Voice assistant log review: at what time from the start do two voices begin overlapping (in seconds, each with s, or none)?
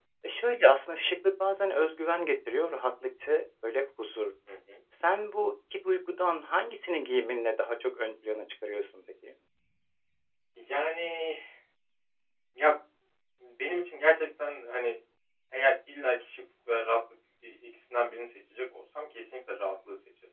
none